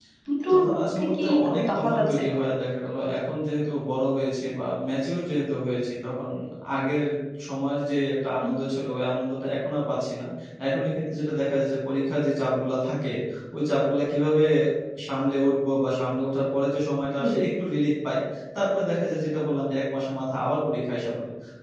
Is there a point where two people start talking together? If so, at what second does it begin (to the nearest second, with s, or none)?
1 s